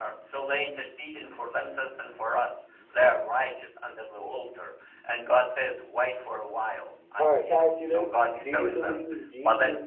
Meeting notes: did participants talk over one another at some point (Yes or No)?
Yes